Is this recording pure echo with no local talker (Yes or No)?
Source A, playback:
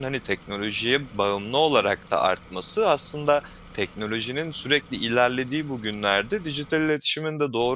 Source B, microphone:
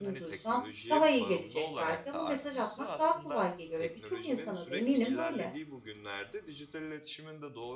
No